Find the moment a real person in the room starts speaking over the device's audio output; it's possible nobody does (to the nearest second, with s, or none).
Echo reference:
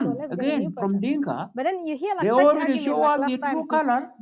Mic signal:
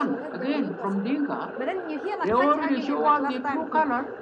none